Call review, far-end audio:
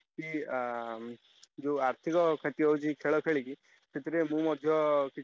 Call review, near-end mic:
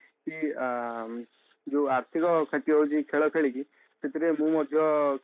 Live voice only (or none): none